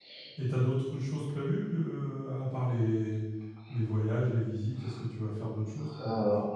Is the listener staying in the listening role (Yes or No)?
No